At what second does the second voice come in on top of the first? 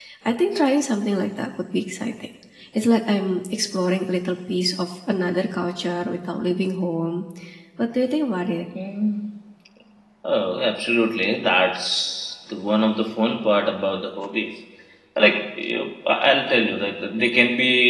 none

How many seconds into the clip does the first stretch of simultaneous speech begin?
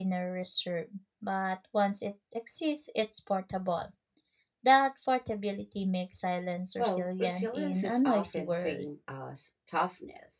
6.8 s

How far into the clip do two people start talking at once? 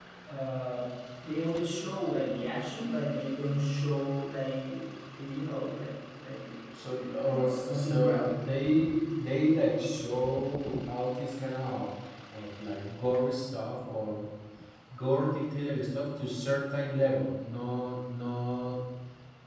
6.7 s

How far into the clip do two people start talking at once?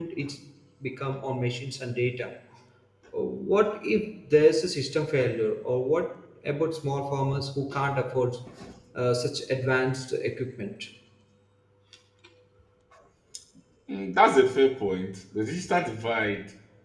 none

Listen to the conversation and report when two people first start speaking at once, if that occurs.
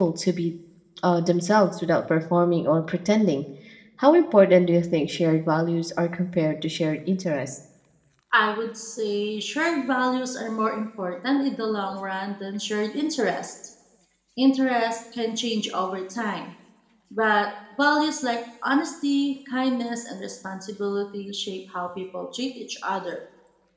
none

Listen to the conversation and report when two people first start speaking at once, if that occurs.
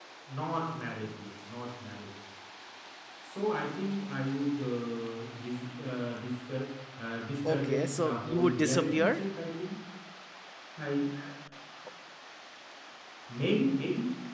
7.5 s

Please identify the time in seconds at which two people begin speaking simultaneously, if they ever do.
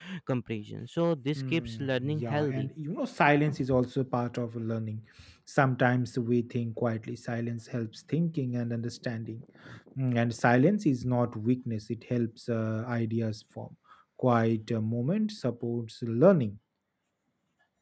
1.4 s

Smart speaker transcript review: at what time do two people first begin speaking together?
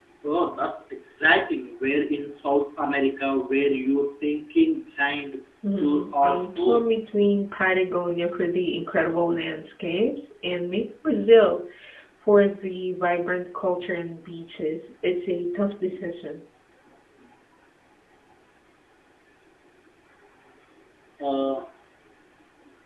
5.8 s

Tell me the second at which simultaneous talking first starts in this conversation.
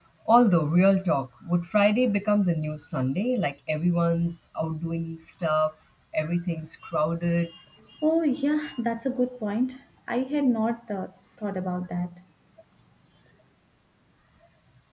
none

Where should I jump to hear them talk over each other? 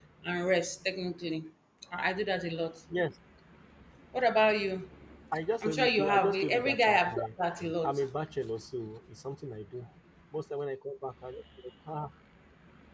5.6 s

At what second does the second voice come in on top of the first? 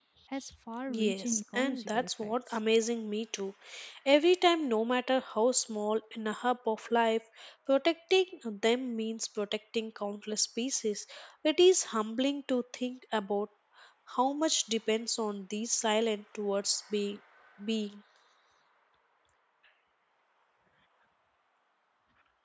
0.9 s

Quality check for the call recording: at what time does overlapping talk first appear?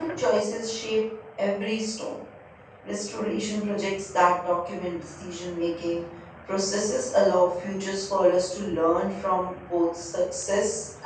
none

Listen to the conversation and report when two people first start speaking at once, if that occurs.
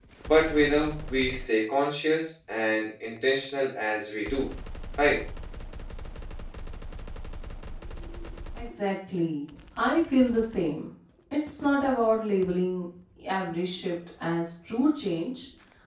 none

